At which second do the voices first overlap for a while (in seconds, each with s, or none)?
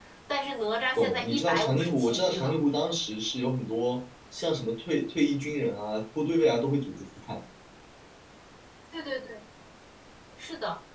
1.0 s